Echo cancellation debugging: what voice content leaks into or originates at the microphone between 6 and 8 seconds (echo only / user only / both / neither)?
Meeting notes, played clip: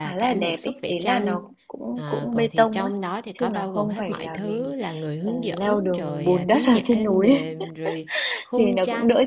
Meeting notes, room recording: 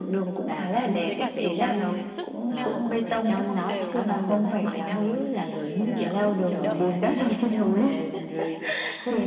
both